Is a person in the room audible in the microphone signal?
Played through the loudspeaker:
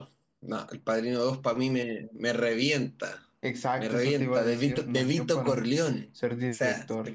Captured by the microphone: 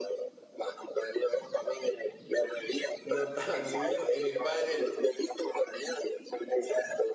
Yes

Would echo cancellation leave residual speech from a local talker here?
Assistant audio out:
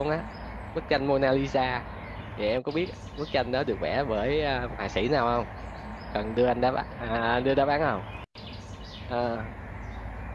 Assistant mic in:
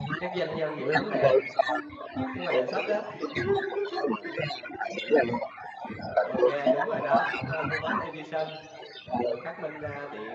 Yes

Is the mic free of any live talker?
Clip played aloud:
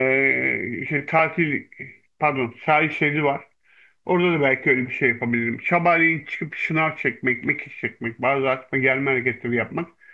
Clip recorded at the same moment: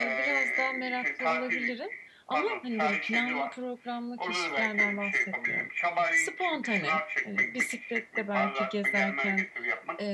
No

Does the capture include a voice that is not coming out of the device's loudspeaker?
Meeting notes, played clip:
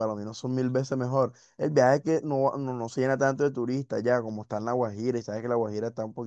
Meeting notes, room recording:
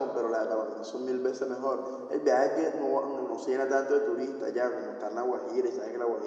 No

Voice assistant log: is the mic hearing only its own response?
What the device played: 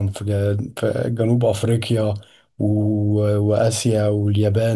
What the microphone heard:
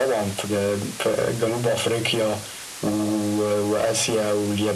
Yes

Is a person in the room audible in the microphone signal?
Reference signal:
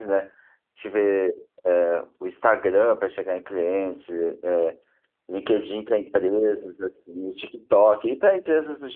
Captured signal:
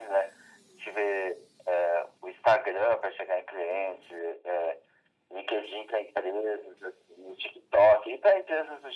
No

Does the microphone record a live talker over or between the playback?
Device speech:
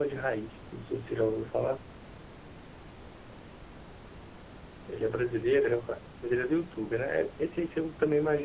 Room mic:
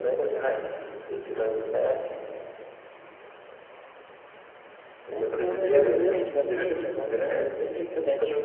Yes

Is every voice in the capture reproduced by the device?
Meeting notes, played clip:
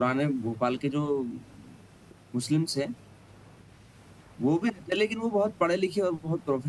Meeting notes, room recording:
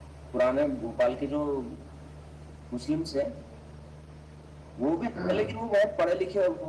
No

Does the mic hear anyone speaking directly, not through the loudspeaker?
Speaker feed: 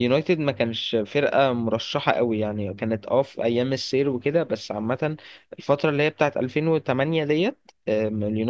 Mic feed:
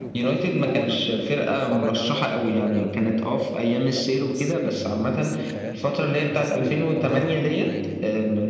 Yes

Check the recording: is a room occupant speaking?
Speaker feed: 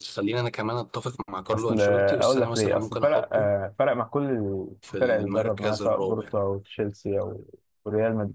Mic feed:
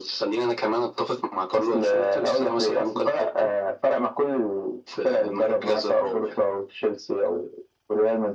No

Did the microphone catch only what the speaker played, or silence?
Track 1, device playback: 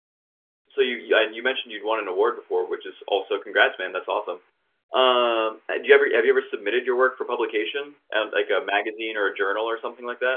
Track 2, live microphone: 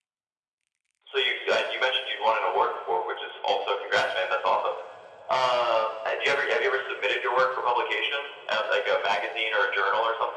Yes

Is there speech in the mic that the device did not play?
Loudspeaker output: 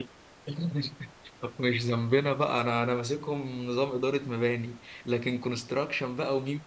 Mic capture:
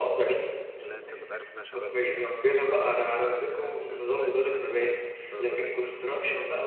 Yes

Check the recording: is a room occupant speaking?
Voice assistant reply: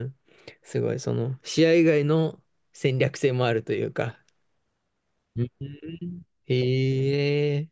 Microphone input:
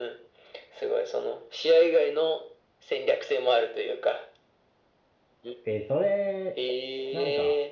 Yes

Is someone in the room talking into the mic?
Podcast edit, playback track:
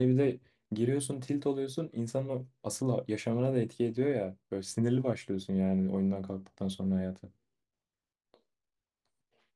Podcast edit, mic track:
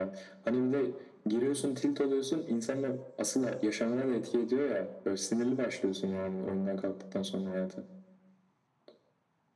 No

